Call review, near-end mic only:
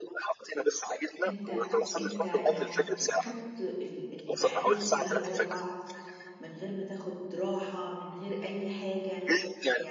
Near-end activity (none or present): present